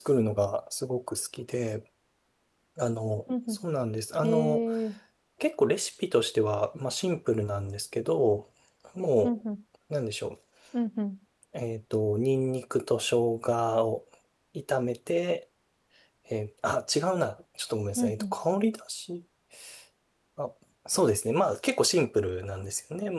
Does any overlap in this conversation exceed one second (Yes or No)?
No